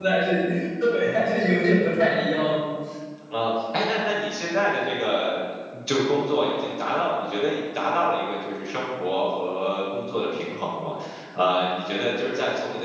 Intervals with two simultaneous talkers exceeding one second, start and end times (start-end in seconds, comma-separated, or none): none